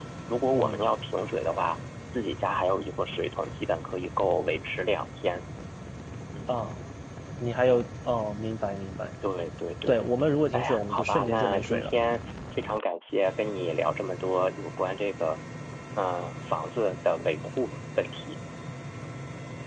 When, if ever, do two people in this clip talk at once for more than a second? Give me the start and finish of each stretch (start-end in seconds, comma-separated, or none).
10.5-11.9